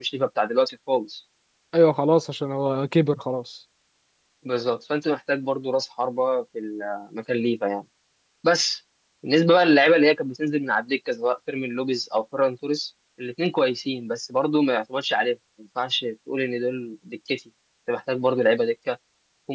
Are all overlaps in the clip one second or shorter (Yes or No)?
Yes